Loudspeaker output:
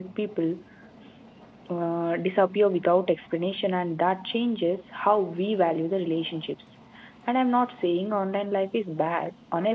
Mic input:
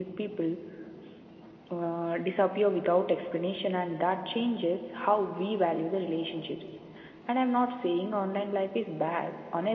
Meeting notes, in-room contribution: none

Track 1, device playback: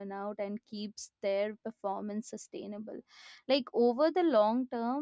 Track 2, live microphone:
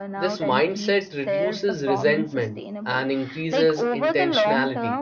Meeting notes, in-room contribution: present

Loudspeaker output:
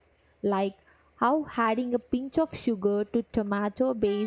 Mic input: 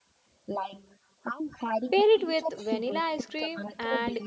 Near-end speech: present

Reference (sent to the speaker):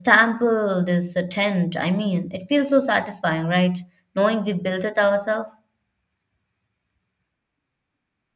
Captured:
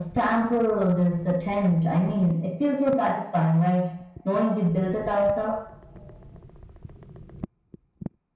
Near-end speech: none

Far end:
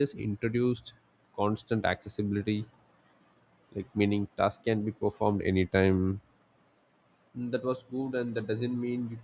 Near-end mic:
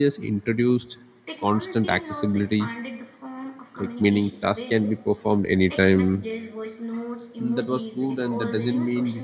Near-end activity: present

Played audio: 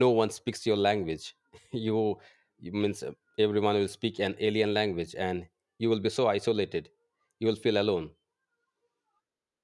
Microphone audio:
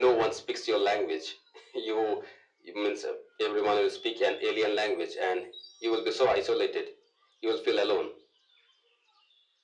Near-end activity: none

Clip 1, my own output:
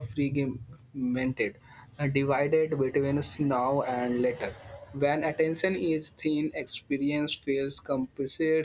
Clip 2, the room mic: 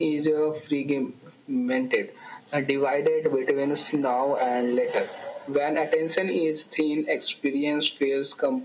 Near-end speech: none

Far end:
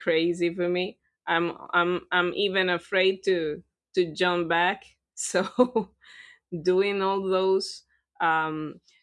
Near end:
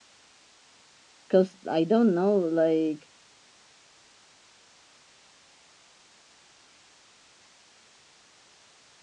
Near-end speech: present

